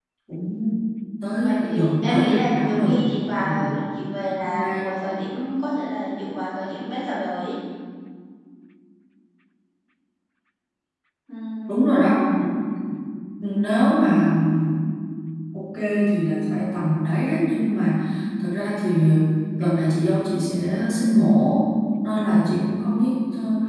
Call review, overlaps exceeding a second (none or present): present